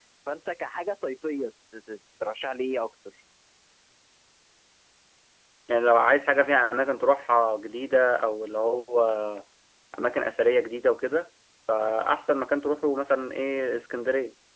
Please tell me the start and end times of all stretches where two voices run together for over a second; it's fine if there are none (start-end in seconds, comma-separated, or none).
none